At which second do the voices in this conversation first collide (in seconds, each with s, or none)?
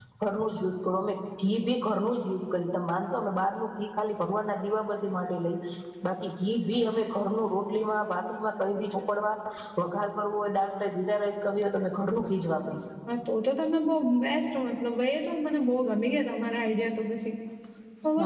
none